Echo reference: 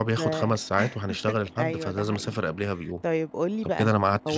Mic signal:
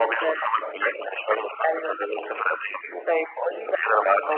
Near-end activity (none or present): none